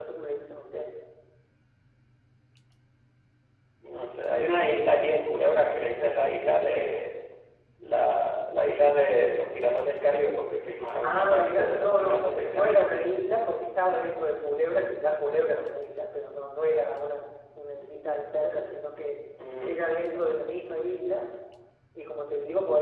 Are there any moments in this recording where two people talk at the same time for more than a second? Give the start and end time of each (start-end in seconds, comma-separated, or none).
11.0-13.1